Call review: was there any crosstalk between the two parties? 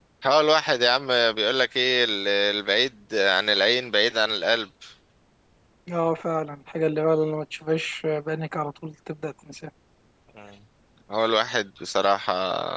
No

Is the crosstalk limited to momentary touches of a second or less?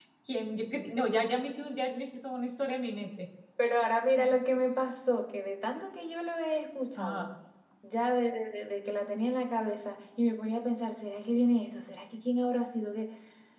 Yes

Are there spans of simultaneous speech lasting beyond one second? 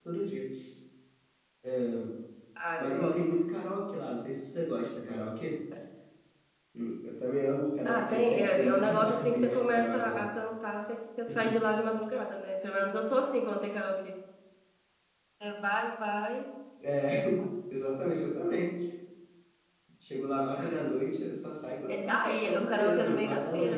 Yes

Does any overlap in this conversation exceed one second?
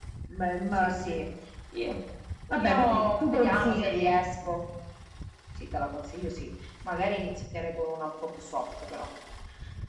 Yes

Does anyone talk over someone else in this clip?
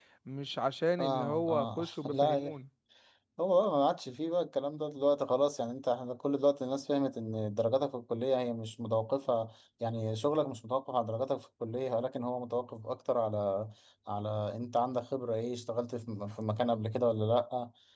Yes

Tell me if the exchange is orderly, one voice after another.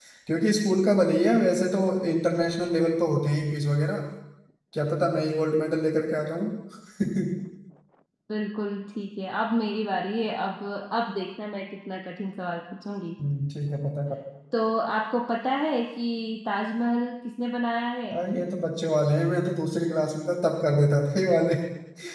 Yes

